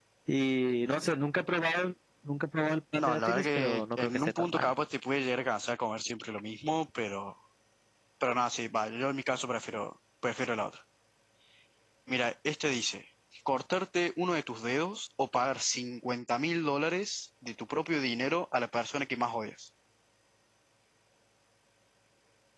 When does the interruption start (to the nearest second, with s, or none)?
3 s